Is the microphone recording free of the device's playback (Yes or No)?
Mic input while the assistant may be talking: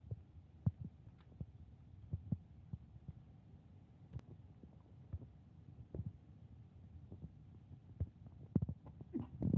Yes